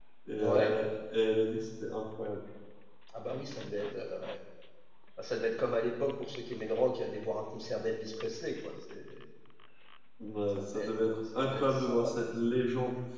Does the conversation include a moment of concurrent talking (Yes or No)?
Yes